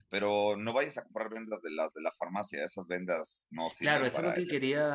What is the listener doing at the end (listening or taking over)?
taking over